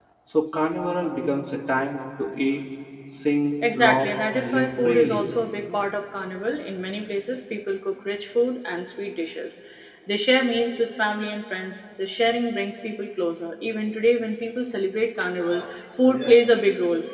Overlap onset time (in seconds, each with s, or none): 3.8 s